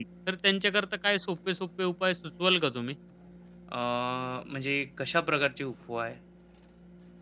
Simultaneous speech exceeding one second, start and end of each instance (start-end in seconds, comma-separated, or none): none